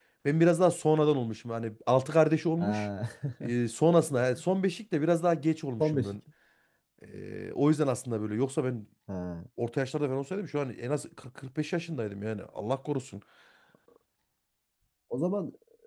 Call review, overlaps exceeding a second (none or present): none